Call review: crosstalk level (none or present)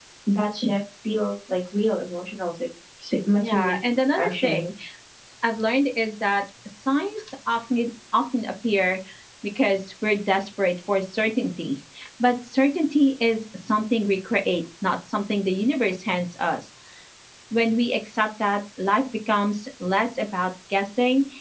present